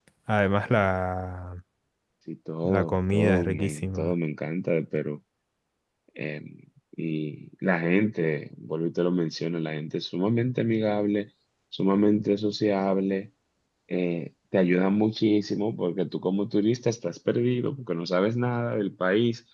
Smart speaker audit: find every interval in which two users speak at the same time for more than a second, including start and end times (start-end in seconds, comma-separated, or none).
2.6-4.1